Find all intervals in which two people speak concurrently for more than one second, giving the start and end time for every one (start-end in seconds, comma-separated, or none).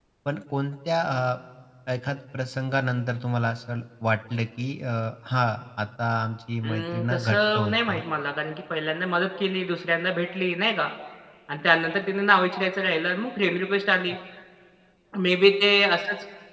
6.6-8.0